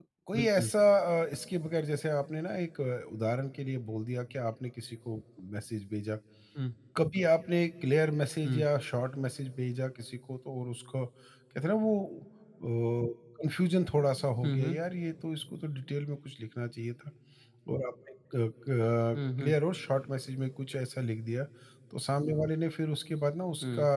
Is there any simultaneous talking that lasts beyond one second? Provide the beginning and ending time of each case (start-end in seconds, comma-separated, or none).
none